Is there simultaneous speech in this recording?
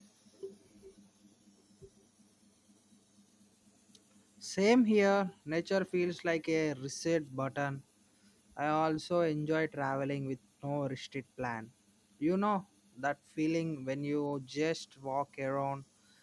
No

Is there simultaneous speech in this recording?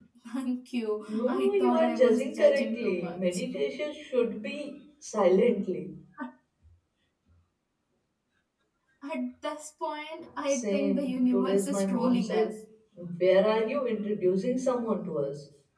Yes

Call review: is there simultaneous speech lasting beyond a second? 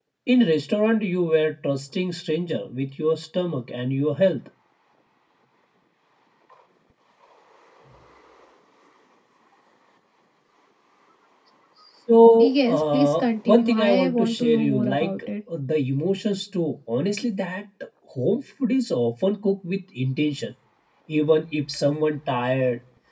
Yes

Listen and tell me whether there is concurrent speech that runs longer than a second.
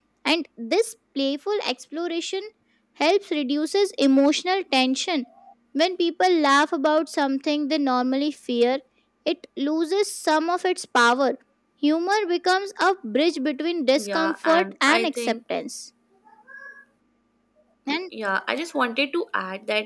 Yes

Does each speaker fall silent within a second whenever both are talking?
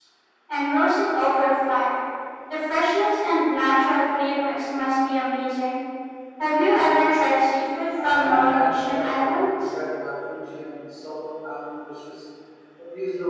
No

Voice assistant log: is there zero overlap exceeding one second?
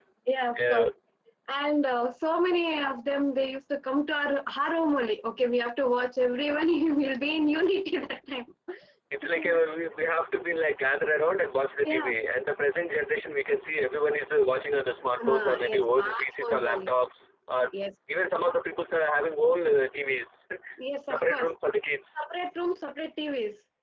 No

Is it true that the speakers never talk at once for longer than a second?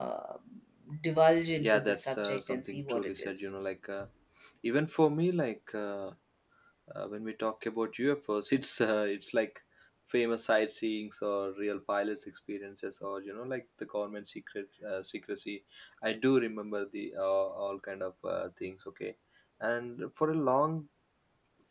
No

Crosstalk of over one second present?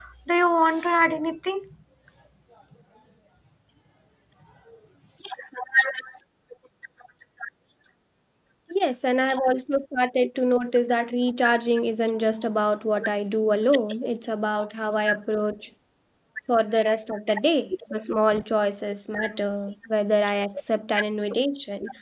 No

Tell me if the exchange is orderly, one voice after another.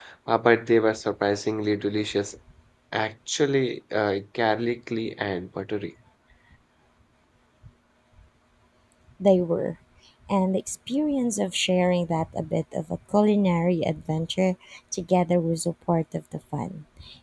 Yes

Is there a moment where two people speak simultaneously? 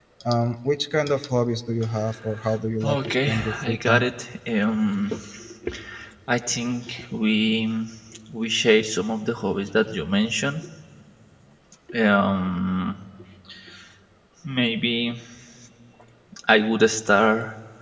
Yes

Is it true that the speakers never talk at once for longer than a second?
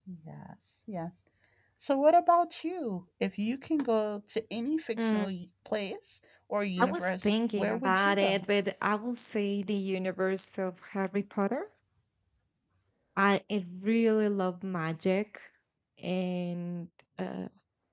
No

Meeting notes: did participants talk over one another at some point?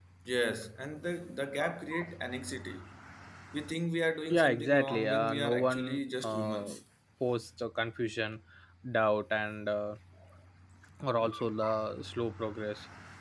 Yes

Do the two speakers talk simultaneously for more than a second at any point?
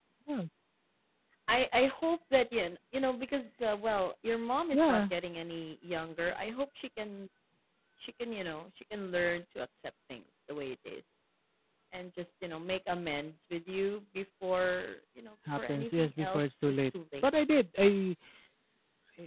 Yes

